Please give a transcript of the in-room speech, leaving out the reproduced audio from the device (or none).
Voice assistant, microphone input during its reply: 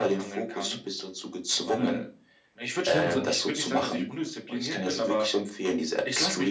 Genau.